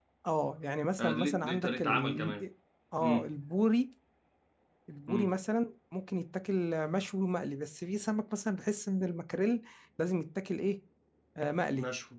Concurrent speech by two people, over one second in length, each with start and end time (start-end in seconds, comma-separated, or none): 1.0-2.3